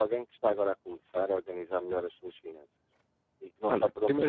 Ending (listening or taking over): taking over